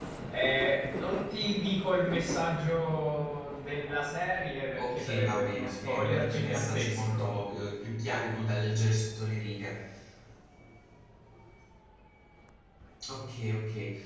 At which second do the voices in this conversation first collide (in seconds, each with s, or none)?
4.8 s